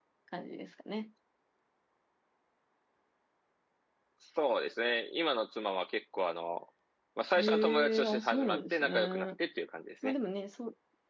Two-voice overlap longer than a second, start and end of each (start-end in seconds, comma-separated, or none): 7.4-9.3